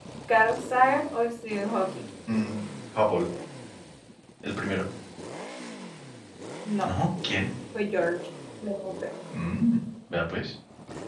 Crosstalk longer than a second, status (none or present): none